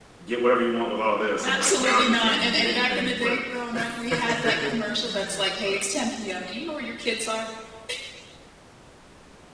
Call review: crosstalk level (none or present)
present